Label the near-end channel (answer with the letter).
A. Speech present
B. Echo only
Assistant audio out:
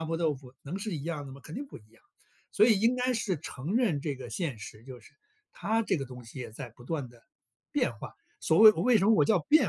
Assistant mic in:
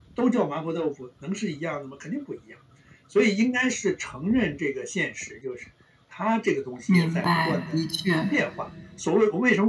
A